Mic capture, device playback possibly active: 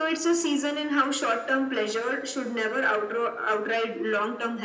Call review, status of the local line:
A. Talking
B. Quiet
B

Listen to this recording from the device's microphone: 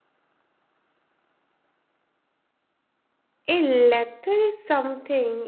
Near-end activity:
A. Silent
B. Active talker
B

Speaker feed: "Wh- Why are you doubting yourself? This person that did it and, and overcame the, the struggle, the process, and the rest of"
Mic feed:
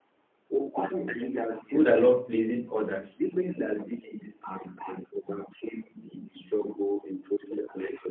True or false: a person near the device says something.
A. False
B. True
B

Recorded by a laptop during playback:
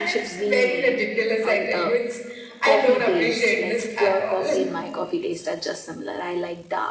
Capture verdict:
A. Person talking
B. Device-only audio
A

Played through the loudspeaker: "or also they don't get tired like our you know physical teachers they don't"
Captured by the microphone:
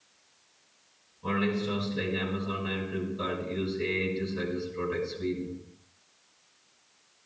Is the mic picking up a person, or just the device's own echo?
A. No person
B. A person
B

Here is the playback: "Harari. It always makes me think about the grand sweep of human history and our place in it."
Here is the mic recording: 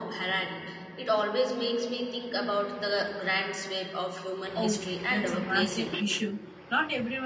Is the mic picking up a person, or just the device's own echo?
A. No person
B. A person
B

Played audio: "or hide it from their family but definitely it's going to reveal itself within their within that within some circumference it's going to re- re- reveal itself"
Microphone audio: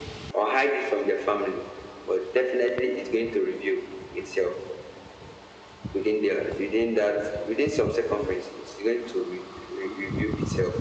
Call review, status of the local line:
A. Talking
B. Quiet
B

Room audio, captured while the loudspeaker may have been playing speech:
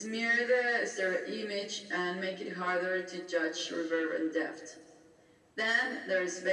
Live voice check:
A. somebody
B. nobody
B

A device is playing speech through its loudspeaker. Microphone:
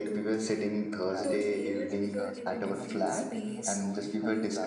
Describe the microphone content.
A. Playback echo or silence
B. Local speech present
B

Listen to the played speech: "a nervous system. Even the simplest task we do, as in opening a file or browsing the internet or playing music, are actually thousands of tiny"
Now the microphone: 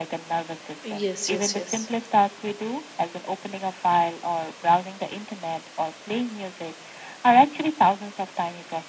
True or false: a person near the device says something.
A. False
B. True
B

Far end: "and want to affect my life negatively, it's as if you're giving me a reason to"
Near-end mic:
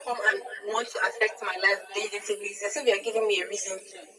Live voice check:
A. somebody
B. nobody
B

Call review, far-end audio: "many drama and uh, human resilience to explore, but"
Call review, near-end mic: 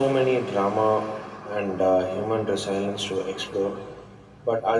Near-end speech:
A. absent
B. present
A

